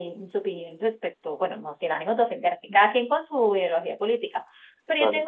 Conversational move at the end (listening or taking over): listening